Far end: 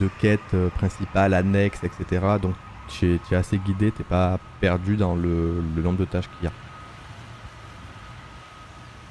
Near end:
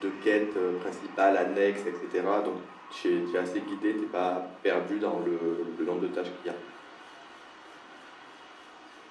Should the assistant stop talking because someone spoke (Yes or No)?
No